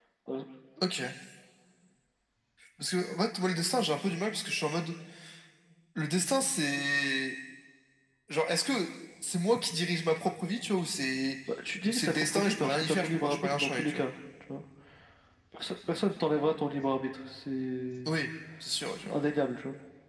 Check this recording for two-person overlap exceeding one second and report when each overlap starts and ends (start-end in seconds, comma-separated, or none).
11.9-14.1